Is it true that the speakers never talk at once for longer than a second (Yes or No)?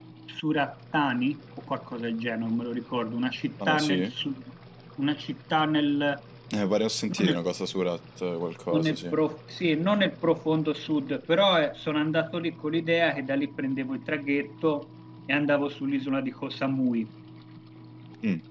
Yes